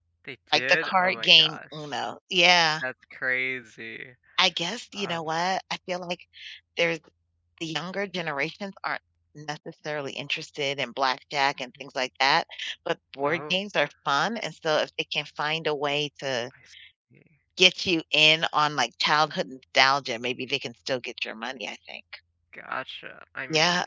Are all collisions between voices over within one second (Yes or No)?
No